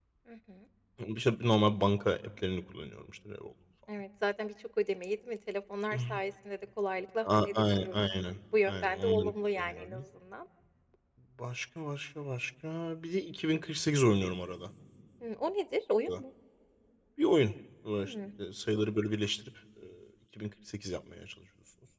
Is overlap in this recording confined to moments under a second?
No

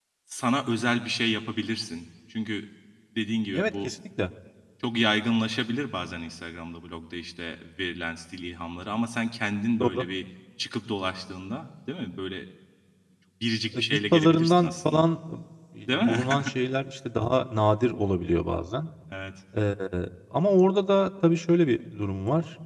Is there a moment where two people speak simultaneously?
Yes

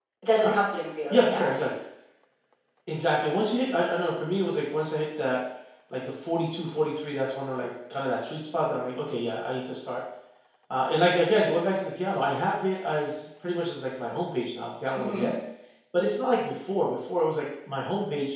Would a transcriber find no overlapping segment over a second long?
Yes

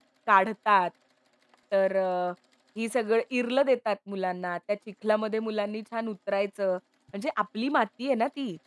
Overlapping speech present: No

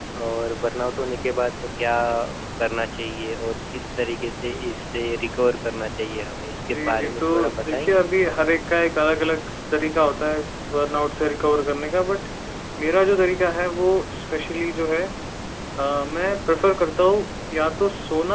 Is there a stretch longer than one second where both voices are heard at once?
Yes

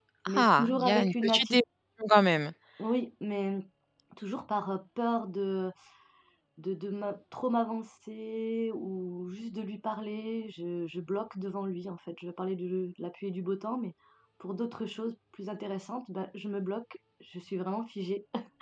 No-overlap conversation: No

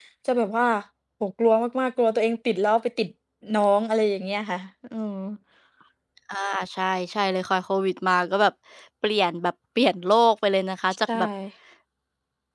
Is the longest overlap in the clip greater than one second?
No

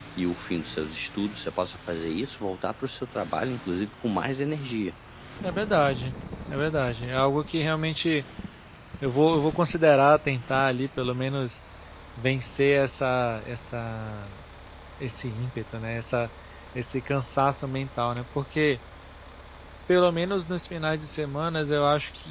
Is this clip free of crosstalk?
Yes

